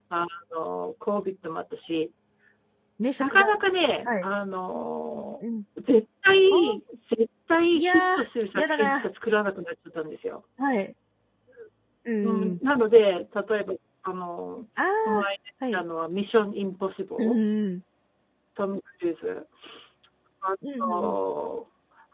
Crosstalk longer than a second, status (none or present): none